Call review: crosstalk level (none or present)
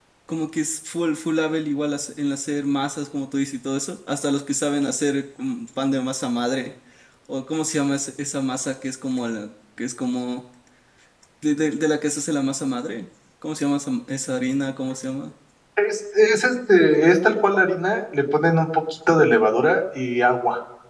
none